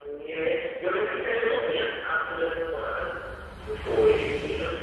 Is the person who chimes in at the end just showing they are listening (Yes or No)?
Yes